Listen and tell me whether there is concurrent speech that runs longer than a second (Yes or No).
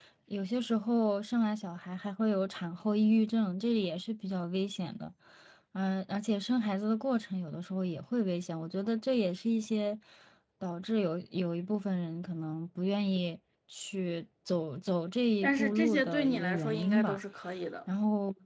Yes